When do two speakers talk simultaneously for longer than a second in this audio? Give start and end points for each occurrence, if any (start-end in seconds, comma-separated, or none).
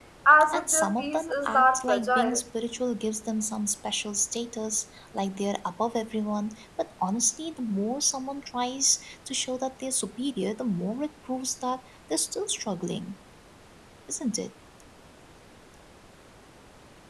0.5-2.4